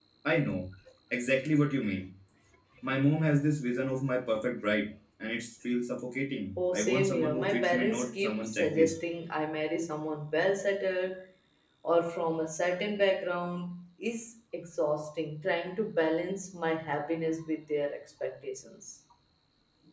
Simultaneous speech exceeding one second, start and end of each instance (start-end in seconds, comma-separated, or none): 6.6-8.9